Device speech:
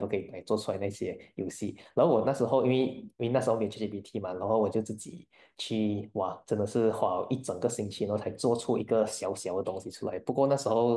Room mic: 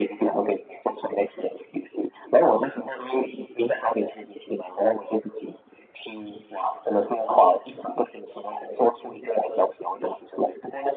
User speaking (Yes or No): No